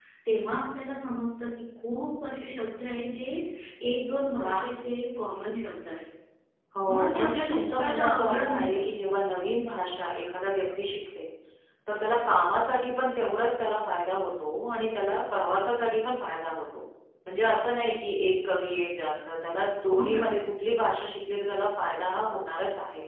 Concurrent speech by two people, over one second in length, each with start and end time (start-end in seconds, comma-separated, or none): 6.9-8.8